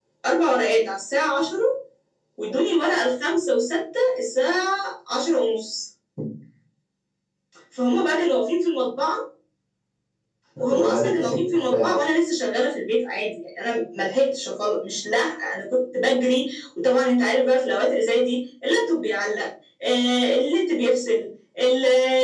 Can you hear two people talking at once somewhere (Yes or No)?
Yes